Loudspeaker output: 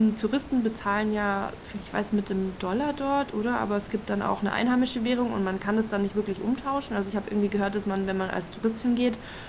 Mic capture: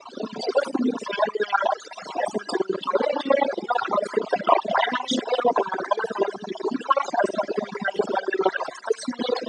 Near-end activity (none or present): none